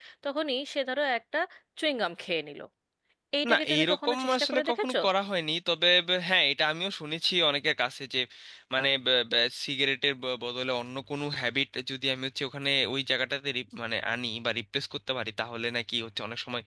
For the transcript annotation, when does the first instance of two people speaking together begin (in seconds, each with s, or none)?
3.5 s